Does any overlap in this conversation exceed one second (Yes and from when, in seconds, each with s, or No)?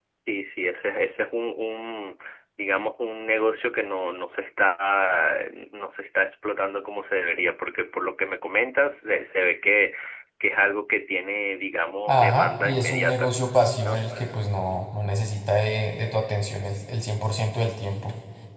Yes, from 12.1 s